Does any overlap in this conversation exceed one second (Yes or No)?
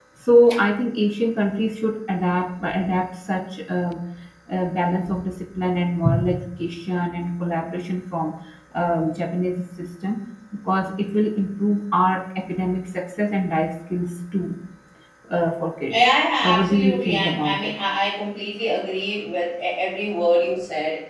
Yes